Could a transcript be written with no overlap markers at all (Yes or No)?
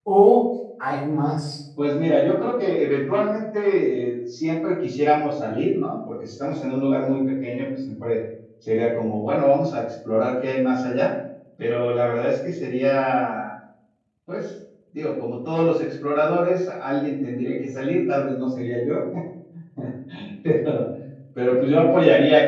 Yes